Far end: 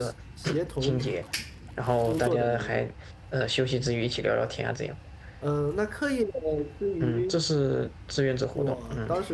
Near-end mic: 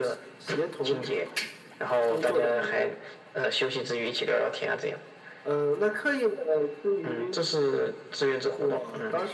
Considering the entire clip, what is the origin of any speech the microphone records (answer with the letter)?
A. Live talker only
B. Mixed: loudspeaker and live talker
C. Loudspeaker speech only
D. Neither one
C